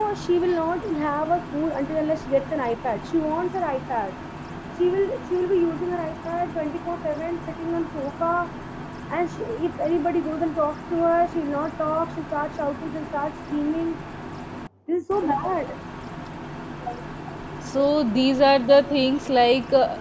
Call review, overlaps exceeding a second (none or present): none